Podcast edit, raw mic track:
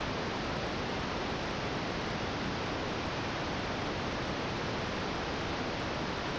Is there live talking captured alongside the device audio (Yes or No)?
No